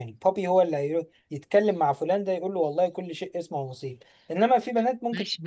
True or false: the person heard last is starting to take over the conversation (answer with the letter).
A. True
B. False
A